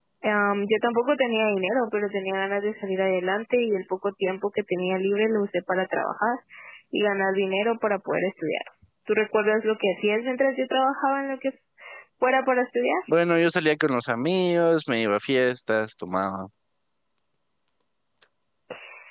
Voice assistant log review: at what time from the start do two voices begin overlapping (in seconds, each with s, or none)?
none